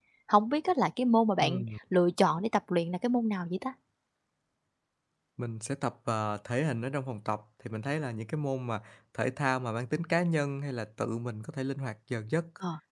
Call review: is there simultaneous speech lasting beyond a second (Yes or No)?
No